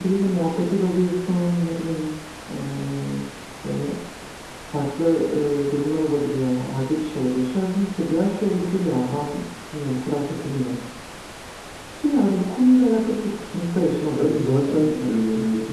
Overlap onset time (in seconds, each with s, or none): 14.1 s